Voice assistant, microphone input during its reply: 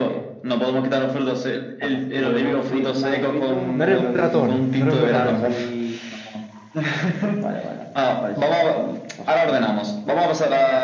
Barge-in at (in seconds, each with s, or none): 3.7 s